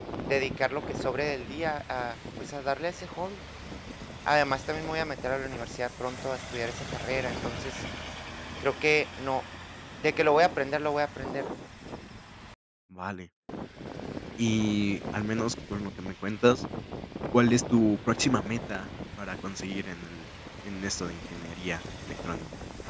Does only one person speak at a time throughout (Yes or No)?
Yes